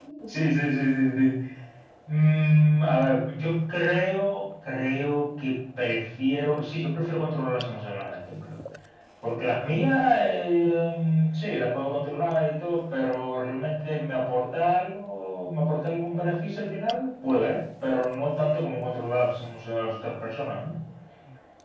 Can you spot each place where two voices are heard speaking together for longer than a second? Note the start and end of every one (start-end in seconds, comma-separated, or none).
none